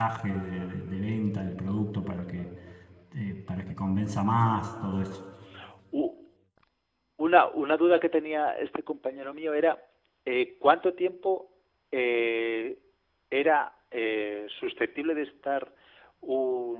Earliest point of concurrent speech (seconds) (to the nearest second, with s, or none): none